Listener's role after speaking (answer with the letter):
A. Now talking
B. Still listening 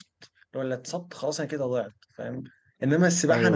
B